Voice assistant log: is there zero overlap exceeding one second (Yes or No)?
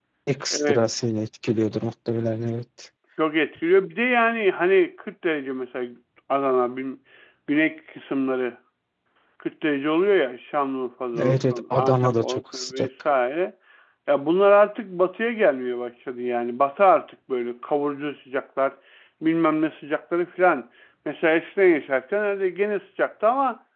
No